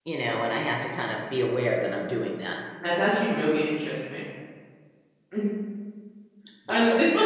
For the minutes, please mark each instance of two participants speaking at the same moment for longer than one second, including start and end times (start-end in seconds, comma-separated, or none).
none